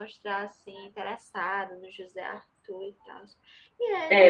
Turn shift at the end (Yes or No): Yes